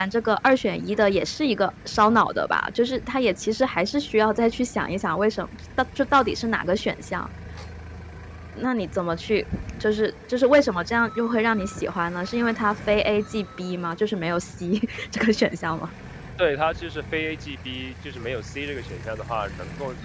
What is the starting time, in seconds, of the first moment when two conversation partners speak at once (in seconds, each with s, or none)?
none